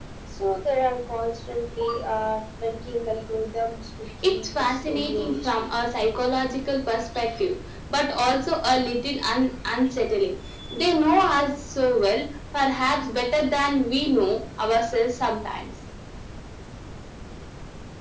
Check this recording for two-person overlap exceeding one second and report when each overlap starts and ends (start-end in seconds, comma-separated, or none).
4.2-5.5